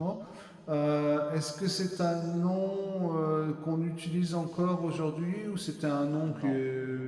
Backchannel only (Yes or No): No